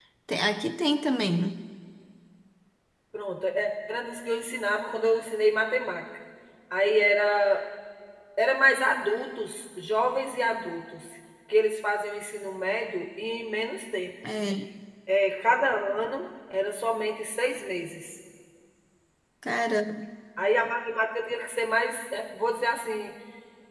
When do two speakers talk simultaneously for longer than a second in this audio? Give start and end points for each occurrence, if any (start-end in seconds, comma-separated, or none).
none